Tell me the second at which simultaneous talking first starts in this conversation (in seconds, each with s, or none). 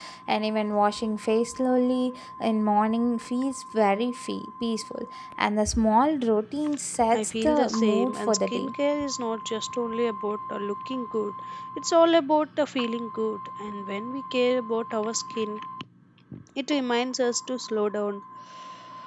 7.1 s